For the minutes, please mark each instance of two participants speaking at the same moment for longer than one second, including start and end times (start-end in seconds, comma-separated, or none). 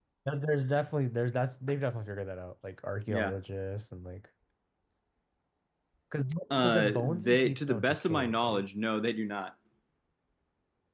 6.5-8.7